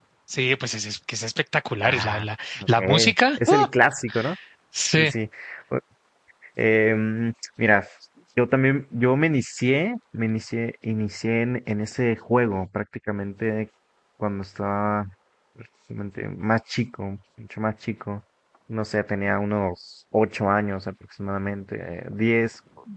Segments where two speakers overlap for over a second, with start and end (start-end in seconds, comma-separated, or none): none